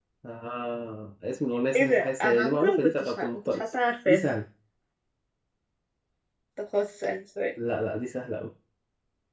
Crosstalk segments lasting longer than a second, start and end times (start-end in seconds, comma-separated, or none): 1.7-3.6